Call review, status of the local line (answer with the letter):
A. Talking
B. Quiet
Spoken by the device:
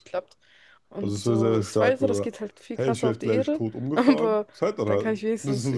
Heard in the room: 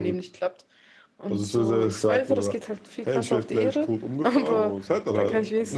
A